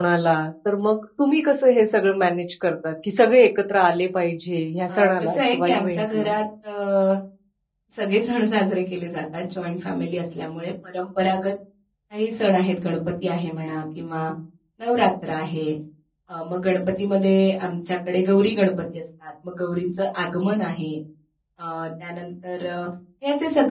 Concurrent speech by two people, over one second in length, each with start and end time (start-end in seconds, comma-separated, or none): 4.9-6.3